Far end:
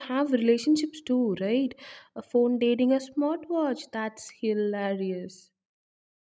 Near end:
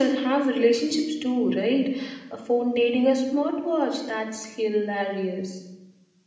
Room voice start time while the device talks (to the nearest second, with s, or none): none